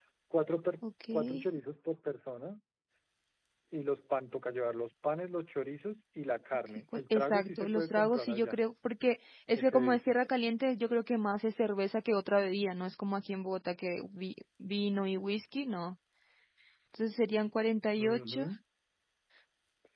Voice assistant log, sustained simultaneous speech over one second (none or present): present